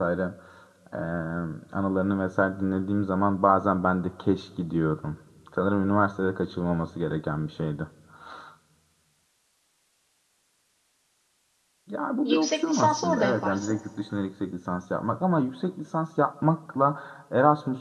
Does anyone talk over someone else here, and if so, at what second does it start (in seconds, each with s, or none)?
12.2 s